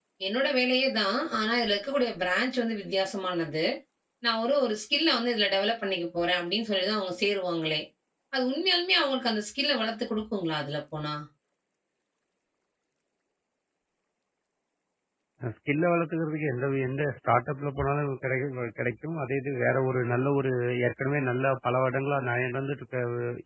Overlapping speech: No

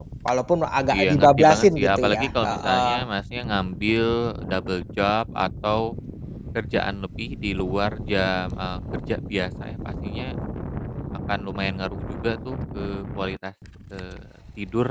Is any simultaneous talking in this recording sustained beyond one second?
Yes, from 0.9 s

